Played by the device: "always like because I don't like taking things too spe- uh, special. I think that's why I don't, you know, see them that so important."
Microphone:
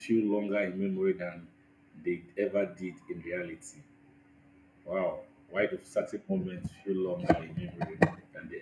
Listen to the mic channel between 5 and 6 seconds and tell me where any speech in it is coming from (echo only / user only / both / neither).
user only